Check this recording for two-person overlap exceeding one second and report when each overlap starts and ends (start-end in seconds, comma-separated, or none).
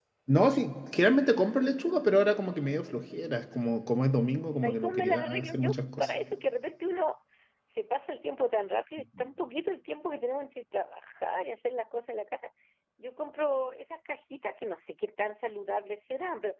4.6-6.1